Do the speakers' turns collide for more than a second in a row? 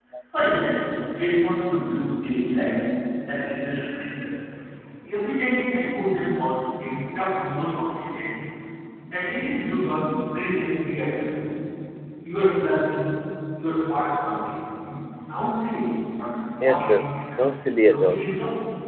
Yes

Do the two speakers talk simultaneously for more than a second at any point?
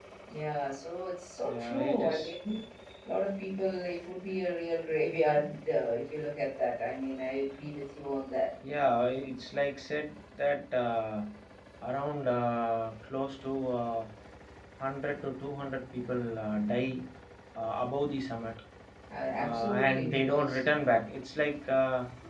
Yes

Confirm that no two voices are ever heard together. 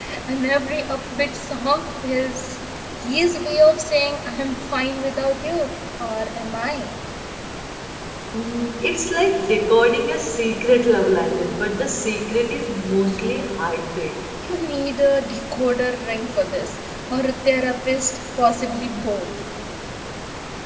Yes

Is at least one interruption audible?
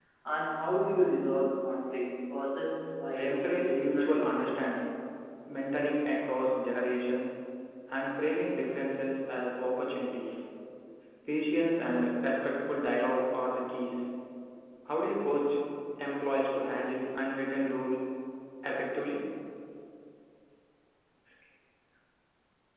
Yes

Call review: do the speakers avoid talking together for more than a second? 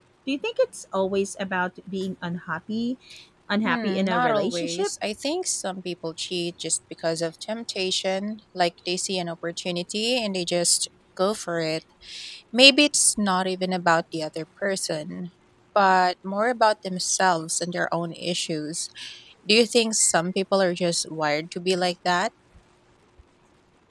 No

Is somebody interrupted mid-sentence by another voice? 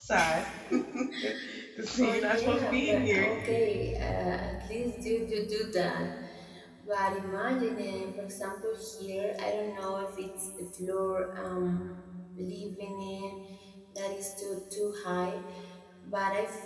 Yes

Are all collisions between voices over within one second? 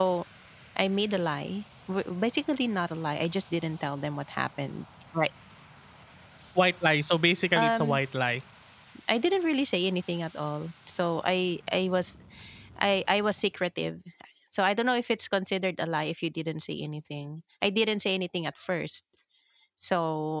Yes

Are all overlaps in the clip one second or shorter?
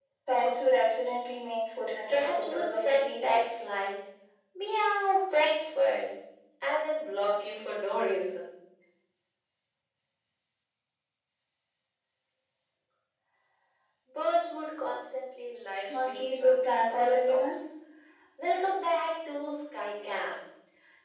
No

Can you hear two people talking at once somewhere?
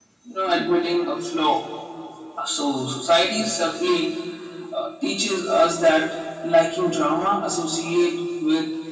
No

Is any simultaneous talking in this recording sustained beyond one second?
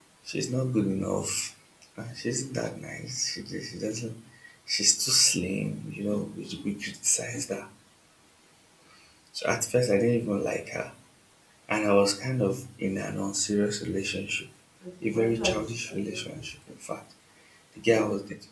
Yes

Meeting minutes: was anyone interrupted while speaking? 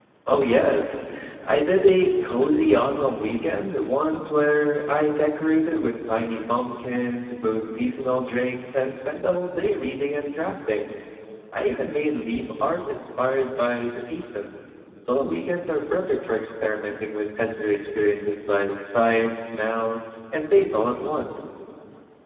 No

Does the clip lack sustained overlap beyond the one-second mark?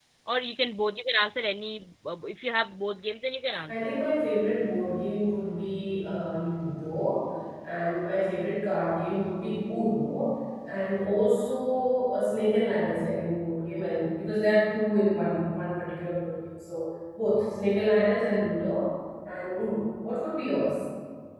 Yes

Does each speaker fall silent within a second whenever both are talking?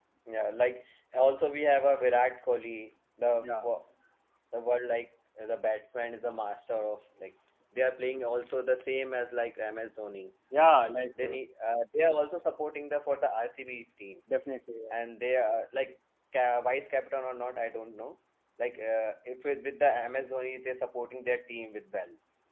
Yes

